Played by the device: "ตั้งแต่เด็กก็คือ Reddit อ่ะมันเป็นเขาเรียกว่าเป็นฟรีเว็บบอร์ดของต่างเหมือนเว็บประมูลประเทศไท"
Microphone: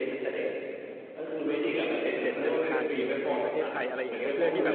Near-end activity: present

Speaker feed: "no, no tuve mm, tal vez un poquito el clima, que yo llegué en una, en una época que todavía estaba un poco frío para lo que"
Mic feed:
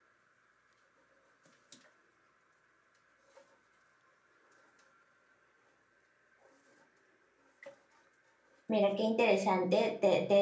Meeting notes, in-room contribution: present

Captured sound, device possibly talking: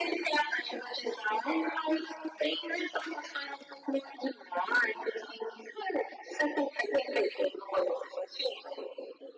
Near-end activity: none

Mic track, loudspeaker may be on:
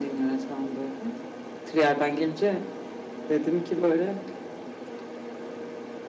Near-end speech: none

